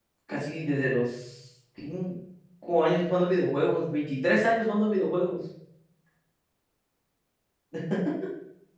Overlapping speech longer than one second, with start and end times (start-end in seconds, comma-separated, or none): none